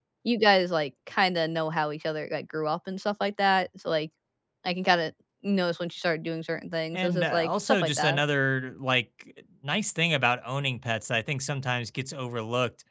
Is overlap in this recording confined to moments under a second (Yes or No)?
No